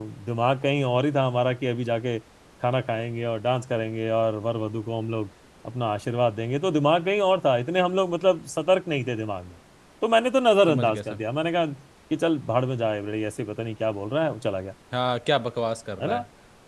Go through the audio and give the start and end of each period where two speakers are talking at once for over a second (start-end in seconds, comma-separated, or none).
none